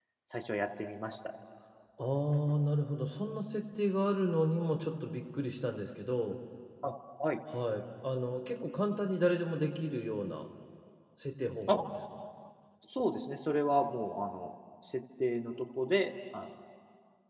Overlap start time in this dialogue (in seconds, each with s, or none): none